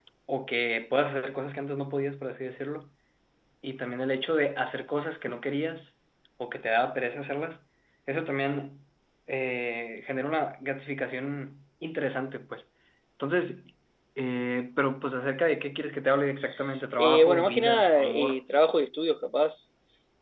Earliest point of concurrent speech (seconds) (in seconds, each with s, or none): 17.0 s